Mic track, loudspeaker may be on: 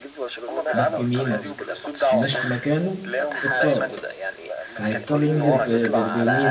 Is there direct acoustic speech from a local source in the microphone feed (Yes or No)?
Yes